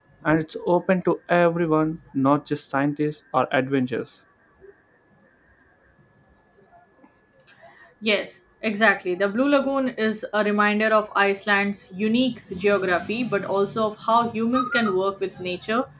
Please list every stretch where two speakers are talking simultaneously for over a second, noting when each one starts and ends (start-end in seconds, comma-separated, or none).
none